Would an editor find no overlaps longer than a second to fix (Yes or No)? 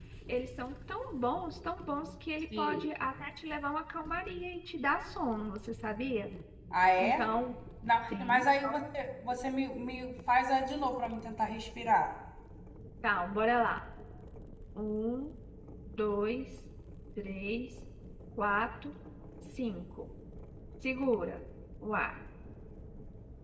Yes